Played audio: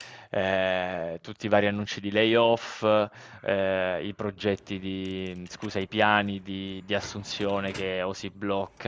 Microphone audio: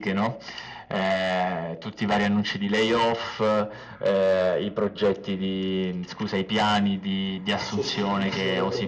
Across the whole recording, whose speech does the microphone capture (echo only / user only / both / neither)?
both